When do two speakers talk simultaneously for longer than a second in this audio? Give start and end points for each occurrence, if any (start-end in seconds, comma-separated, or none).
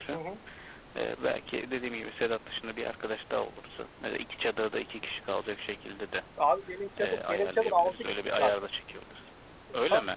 7.0-8.5